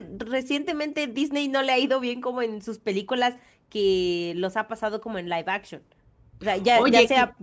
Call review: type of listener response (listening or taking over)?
listening